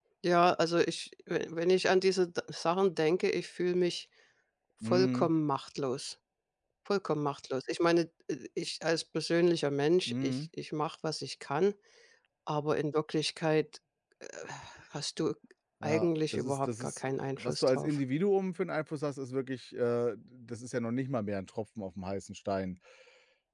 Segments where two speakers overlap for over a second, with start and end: 15.8-18.0

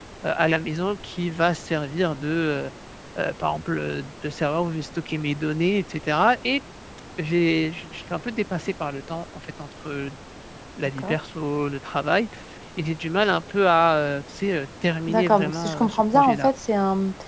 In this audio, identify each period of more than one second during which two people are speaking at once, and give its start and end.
15.1-16.5

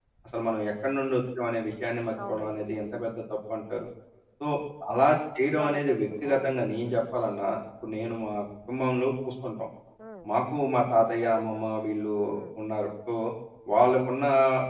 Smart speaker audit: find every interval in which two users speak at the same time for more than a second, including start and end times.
5.6-7.0

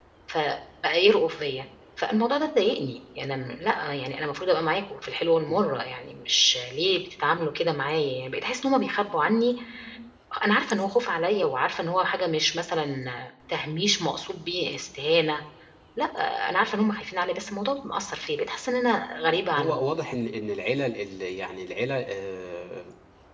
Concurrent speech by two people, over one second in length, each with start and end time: none

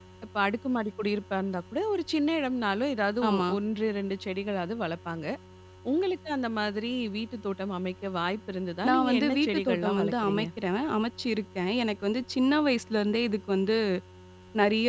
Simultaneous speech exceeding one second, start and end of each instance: 8.9-10.4

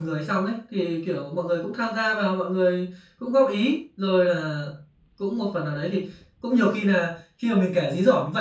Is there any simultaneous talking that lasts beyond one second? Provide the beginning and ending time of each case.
none

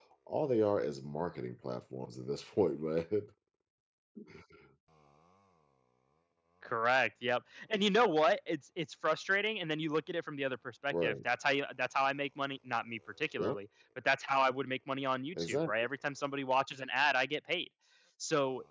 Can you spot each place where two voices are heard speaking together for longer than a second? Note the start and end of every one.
none

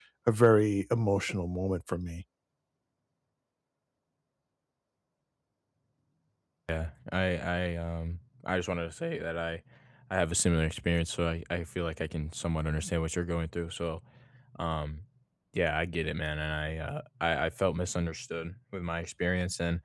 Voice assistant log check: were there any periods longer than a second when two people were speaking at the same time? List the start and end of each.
none

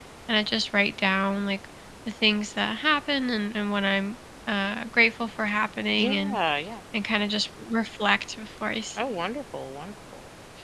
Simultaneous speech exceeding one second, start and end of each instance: none

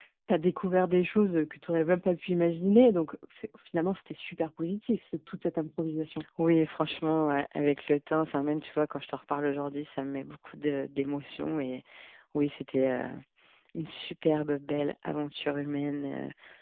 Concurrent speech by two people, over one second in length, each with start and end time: none

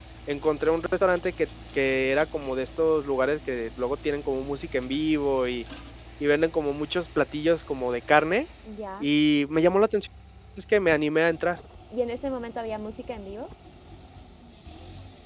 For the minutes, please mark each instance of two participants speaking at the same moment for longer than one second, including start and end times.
none

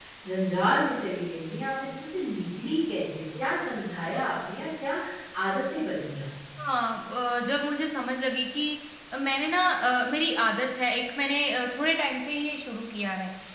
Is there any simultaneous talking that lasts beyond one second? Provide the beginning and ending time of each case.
none

